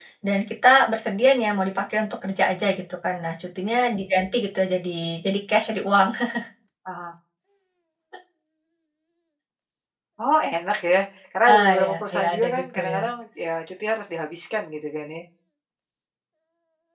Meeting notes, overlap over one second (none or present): present